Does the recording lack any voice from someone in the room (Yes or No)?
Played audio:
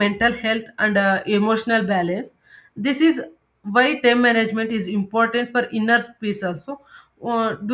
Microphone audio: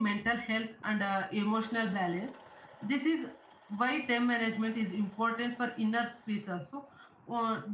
Yes